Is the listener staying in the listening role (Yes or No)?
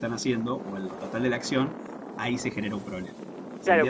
No